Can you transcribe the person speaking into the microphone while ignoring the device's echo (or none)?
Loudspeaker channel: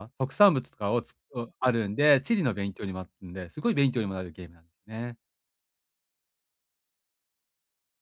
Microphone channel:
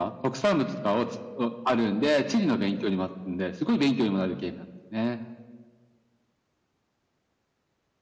none